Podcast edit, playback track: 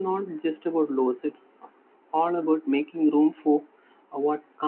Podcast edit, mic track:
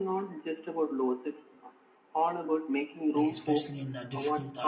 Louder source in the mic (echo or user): echo